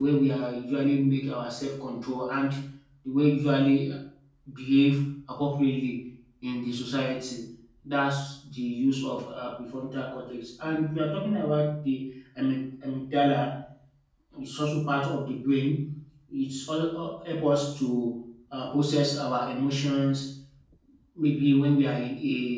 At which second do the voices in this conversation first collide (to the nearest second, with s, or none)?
none